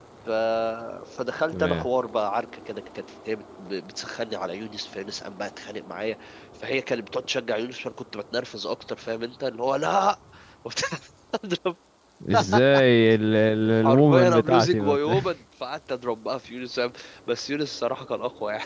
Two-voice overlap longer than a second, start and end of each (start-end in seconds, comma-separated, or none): 13.8-15.1